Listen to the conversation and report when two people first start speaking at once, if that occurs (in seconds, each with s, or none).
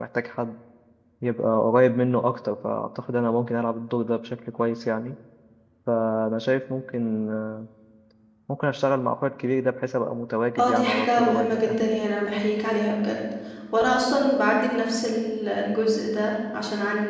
10.6 s